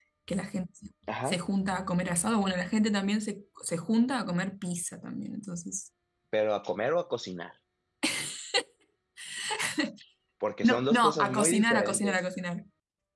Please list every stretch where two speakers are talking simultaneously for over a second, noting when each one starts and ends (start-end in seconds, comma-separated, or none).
10.6-12.2